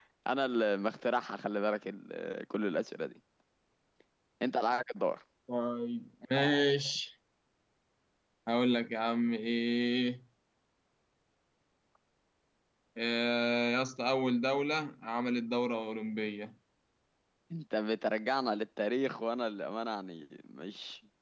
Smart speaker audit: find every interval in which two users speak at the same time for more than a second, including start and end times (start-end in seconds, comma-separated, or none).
none